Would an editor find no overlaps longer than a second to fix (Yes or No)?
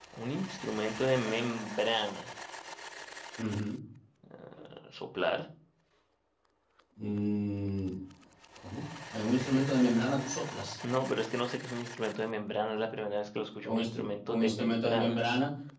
No